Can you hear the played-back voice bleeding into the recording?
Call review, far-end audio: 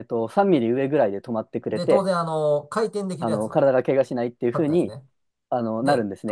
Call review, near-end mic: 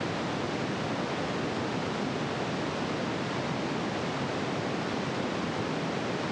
No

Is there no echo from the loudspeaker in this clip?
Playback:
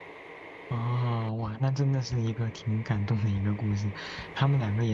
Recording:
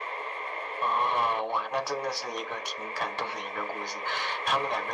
No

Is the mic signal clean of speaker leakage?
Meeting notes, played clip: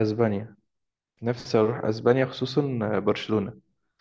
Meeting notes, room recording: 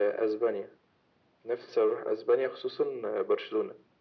No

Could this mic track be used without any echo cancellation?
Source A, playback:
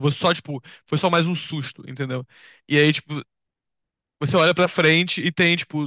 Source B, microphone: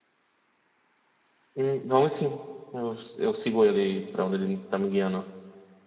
Yes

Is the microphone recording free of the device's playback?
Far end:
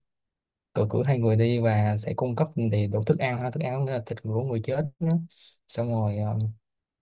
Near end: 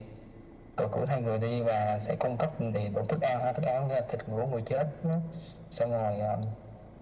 No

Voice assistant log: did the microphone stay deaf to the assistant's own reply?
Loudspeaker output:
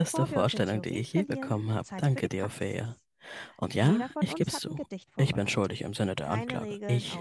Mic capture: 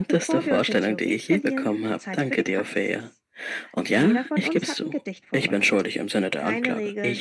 No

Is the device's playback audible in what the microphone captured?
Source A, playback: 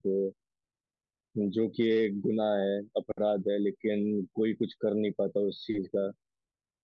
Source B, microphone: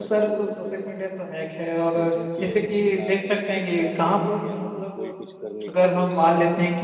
Yes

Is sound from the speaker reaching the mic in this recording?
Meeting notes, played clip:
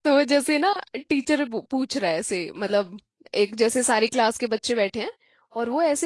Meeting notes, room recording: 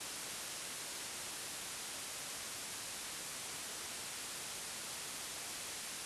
No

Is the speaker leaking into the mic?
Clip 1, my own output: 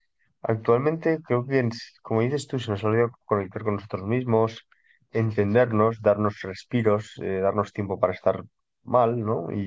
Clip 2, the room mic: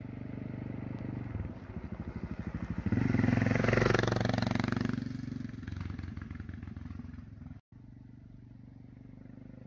No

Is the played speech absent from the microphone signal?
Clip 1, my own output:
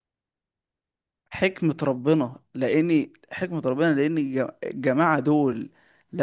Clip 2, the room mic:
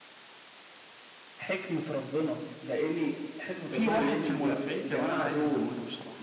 No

